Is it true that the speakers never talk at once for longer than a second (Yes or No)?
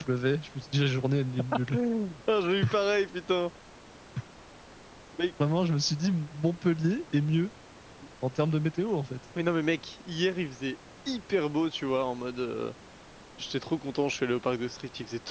Yes